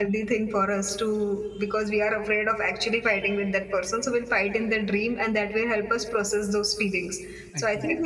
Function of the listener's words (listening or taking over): listening